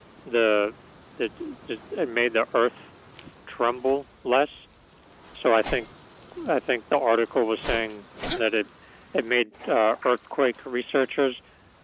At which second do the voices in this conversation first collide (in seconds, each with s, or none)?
none